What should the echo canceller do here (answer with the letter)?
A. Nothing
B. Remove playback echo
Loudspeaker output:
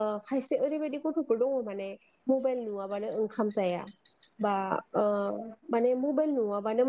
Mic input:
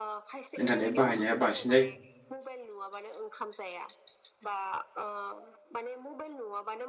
B